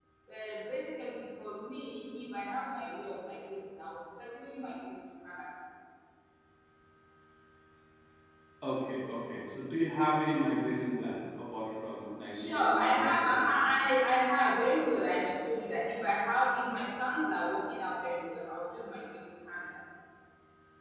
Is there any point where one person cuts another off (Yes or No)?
Yes